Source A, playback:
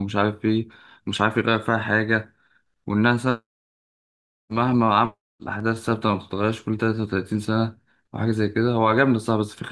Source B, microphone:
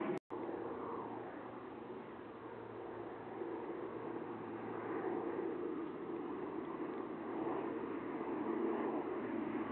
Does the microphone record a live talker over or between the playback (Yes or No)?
No